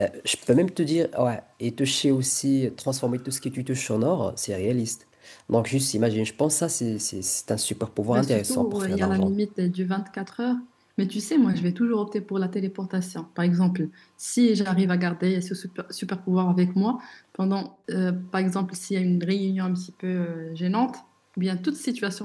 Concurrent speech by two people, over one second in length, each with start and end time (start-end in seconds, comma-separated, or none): 8.1-9.3